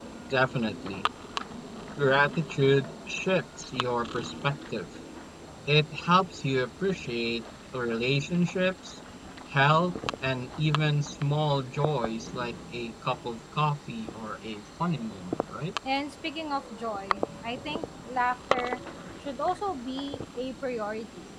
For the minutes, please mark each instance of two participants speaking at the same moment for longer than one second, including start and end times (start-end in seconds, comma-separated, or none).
none